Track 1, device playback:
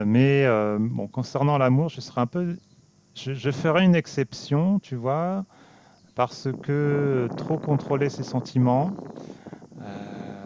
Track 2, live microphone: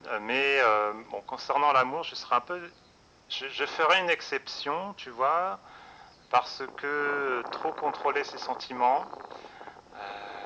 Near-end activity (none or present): none